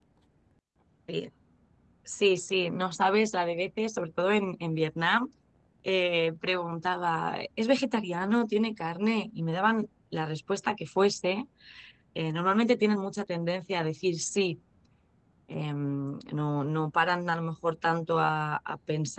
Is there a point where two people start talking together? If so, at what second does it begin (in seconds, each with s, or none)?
none